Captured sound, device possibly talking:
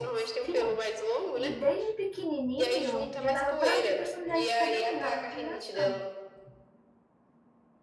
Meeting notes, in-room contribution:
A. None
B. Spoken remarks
B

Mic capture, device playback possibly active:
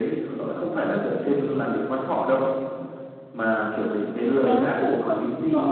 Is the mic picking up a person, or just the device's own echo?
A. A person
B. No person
A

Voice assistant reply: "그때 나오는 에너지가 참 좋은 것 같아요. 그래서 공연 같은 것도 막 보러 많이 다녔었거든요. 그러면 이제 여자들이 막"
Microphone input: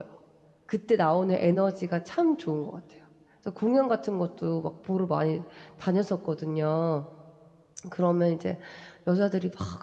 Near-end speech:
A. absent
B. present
A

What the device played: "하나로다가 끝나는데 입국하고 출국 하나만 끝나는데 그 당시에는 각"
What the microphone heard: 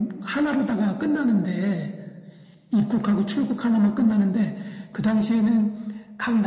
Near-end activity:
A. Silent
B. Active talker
A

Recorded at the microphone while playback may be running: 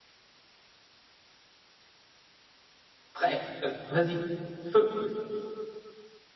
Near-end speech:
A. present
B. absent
A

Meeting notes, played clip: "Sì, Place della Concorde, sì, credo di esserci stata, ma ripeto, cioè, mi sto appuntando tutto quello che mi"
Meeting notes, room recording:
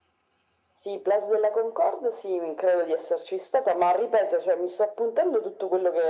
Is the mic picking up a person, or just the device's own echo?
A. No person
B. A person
A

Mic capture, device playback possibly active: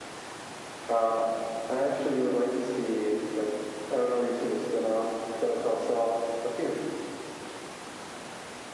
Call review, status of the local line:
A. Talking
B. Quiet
B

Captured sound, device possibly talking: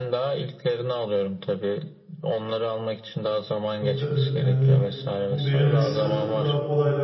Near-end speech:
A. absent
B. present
B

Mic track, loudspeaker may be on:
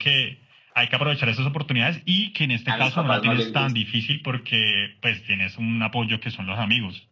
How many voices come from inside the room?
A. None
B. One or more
B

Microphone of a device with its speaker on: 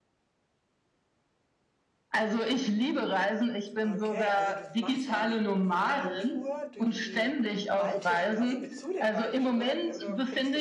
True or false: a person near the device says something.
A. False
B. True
B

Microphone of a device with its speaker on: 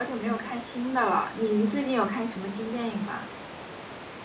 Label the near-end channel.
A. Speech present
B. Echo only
A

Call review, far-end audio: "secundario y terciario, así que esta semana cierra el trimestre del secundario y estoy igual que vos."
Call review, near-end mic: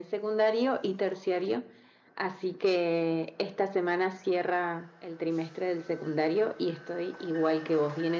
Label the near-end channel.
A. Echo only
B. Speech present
A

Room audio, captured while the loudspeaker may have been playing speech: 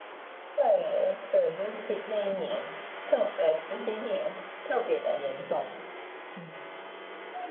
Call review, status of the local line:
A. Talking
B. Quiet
B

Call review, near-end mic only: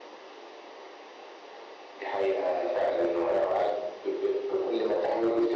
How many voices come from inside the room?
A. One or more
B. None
B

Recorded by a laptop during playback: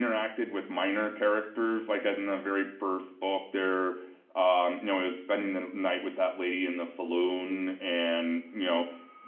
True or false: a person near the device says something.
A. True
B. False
A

